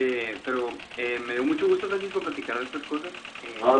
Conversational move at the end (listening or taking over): listening